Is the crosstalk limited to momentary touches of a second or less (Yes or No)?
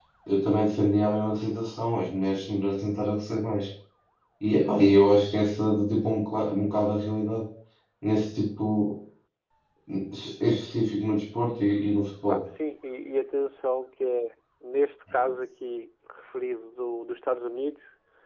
Yes